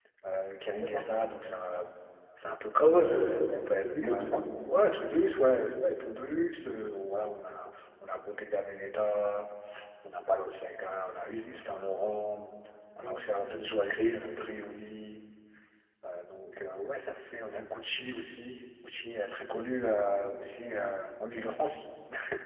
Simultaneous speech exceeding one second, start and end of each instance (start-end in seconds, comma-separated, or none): 2.8-4.2